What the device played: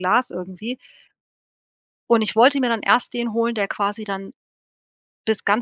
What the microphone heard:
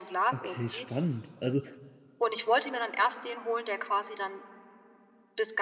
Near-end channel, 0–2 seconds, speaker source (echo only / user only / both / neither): both